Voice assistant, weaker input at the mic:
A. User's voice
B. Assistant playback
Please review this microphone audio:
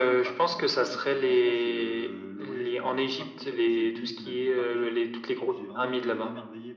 A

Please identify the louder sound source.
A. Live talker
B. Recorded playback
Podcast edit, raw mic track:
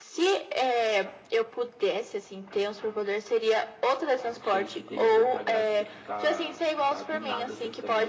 B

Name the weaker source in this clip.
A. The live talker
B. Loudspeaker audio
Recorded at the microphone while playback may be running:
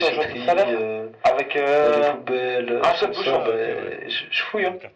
A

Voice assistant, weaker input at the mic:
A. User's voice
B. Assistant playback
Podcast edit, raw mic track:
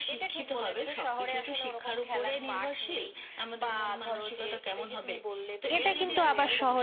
B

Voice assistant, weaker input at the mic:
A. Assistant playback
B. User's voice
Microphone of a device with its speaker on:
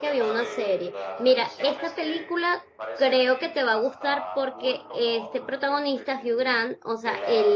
A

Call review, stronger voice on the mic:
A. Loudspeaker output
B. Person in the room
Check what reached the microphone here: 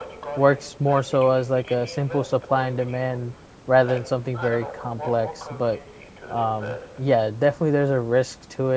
B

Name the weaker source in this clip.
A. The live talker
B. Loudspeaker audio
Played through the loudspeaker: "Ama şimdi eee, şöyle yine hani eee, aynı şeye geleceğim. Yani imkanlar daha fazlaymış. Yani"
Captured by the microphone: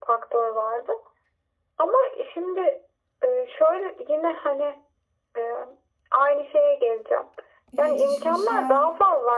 A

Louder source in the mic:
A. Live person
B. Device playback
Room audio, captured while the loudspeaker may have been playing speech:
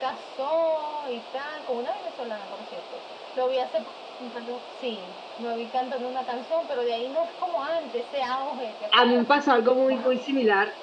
A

